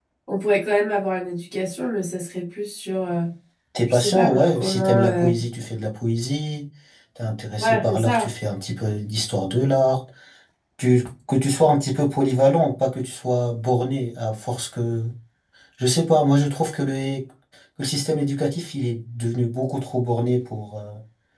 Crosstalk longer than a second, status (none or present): present